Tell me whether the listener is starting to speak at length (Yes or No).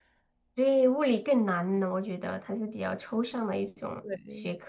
Yes